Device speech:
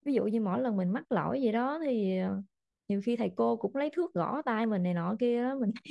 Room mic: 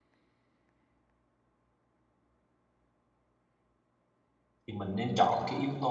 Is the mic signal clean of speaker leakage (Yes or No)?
Yes